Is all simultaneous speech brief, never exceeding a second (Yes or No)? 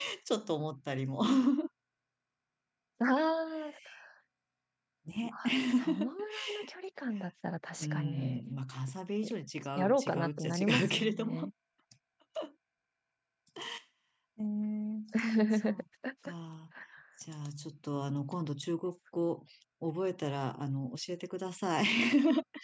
No